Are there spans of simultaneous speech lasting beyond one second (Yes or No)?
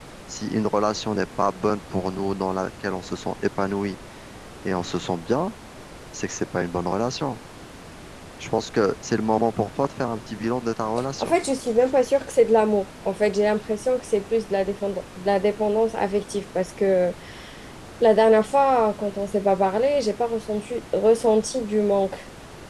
No